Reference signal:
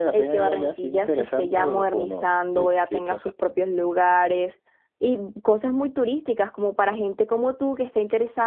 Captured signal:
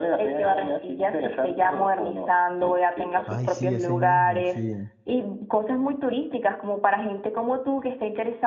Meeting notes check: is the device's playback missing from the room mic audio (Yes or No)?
No